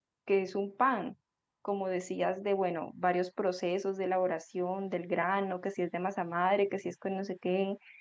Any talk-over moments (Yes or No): No